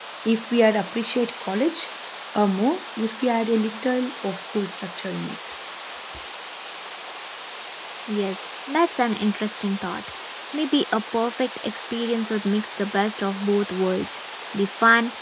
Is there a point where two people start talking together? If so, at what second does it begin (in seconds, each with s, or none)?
none